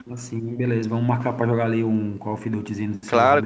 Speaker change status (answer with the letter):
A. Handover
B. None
A